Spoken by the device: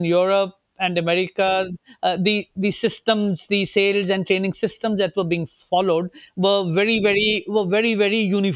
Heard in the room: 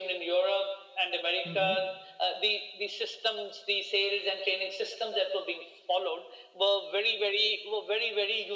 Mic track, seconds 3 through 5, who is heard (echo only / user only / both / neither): echo only